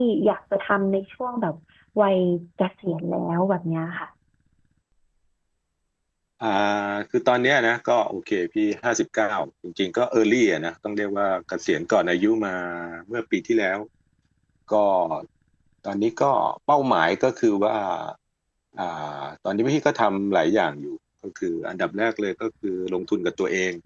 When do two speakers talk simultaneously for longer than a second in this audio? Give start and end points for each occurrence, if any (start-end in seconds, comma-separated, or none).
none